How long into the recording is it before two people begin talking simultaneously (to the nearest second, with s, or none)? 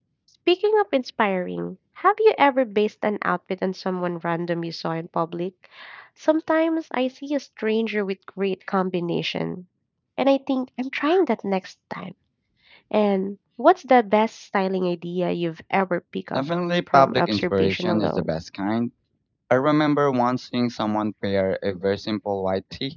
17 s